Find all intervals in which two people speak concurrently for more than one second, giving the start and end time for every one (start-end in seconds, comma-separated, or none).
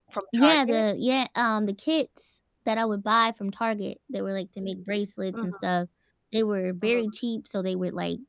none